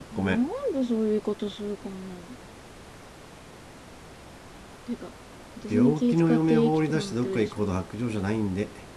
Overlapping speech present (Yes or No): Yes